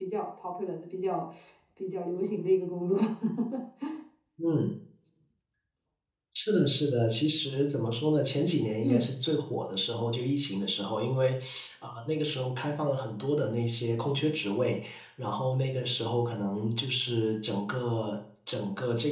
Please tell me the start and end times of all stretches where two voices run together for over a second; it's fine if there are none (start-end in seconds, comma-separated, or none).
none